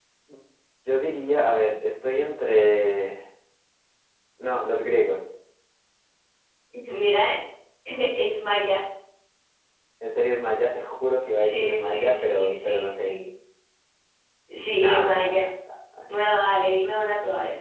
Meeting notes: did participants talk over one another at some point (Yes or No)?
Yes